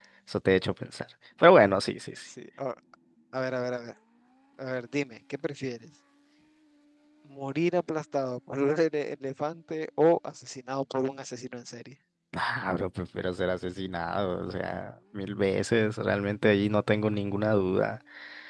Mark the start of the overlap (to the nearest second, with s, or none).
none